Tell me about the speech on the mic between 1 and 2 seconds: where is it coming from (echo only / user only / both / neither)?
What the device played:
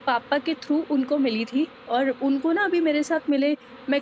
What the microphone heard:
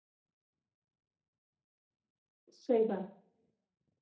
neither